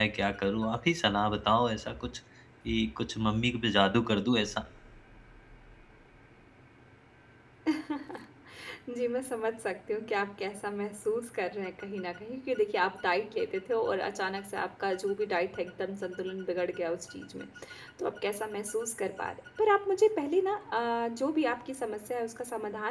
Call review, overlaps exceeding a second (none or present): none